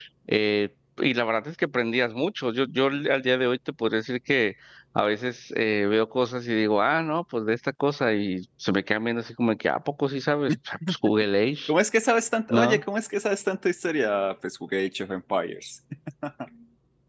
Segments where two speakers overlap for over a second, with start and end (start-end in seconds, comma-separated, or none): none